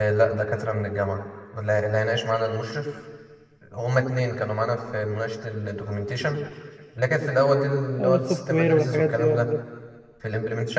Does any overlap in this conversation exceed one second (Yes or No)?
Yes